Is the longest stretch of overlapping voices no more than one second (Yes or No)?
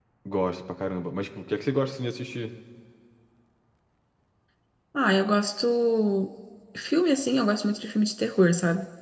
Yes